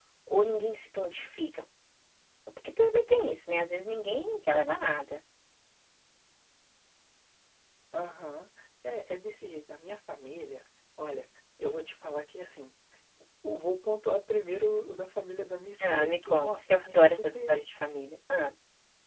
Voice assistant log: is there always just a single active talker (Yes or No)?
No